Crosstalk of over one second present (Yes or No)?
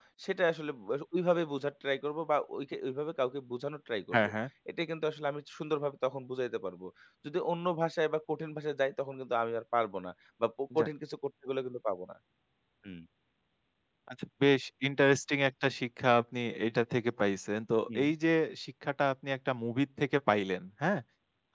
No